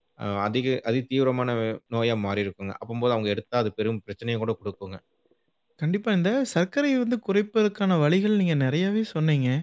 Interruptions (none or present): none